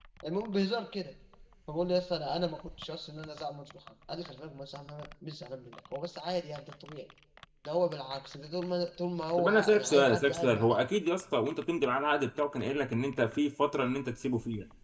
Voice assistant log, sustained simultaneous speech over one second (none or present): present